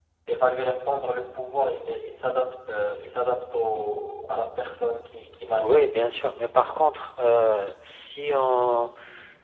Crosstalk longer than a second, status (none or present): none